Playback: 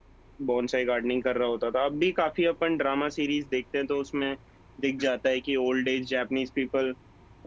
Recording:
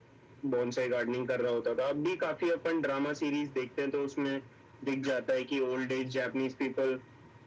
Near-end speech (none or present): none